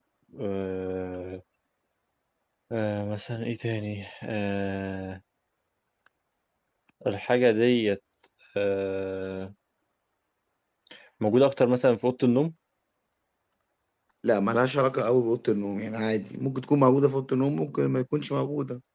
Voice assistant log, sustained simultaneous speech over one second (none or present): none